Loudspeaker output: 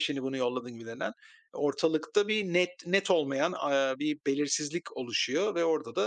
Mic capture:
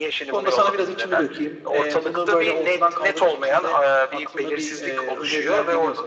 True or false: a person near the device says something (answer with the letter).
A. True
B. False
A